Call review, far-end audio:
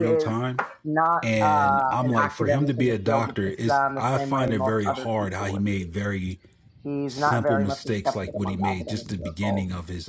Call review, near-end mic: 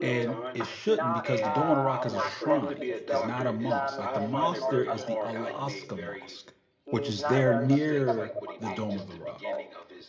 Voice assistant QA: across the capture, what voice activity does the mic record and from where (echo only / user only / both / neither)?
both